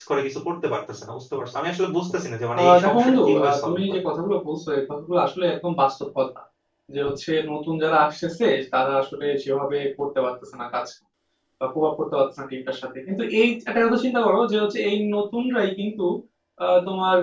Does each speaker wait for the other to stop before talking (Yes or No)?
No